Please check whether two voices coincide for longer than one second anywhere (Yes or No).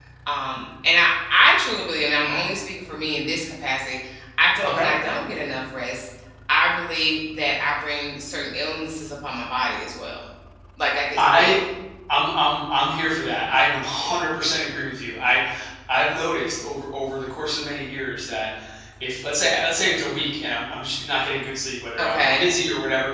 No